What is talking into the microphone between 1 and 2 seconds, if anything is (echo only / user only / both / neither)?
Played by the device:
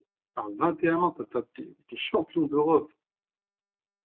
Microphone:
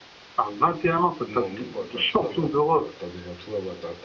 both